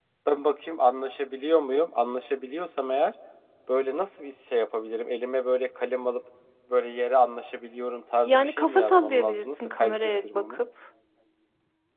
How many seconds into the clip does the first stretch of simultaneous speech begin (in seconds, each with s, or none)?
8.2 s